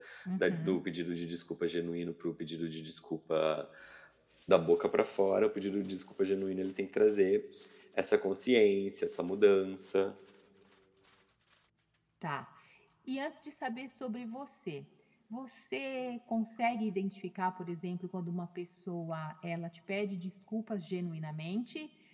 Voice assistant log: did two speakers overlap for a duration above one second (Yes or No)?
No